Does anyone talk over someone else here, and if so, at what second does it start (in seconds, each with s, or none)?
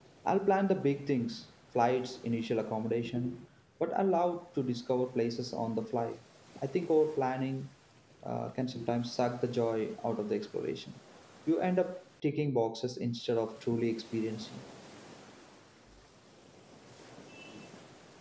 none